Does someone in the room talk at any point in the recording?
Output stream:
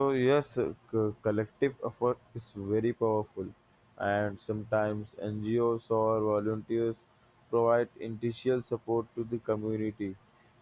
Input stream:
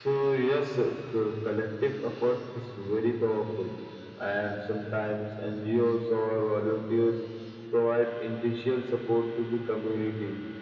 No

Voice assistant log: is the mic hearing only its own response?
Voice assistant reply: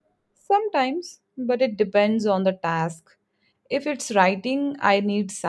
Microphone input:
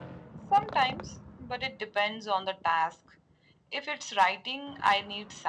Yes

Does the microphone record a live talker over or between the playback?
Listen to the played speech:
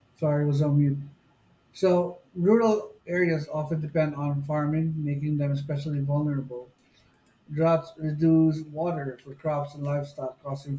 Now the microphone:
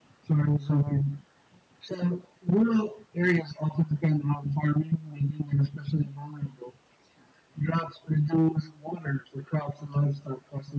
No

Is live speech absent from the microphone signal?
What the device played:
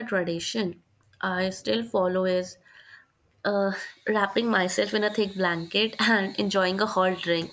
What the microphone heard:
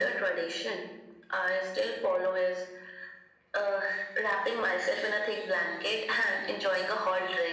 Yes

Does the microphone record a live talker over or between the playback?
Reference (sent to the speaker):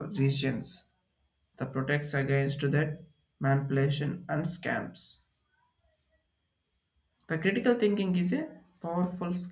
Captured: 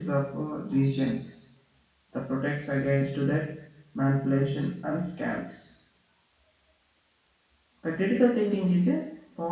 No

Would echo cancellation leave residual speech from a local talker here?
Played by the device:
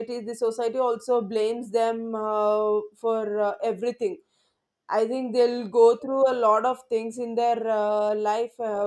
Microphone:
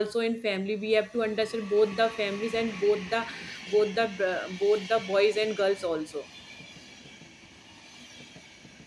Yes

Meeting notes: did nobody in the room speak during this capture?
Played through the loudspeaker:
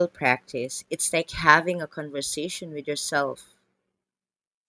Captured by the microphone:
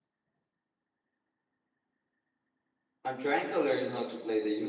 No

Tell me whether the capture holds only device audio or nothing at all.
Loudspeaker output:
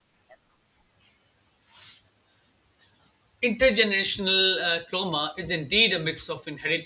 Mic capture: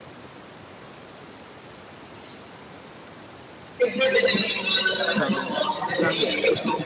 No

